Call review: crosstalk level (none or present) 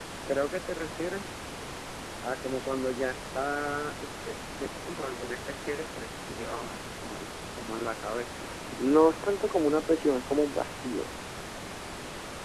none